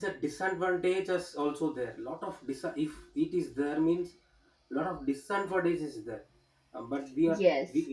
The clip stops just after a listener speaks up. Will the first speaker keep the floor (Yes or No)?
Yes